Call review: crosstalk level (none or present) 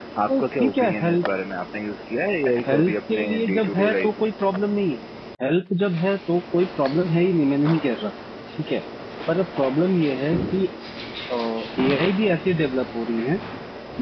present